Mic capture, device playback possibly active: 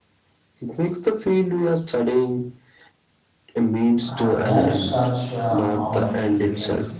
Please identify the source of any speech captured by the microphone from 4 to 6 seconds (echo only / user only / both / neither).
both